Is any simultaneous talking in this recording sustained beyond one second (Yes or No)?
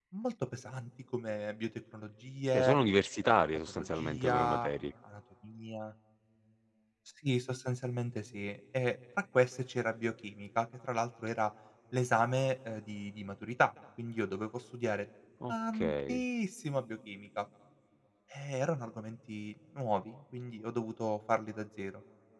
Yes